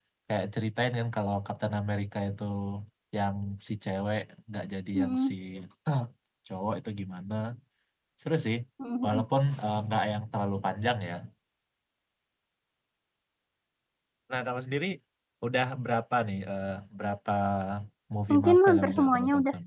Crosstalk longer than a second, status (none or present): present